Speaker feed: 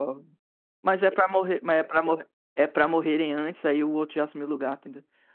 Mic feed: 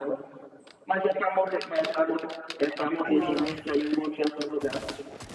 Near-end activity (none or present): present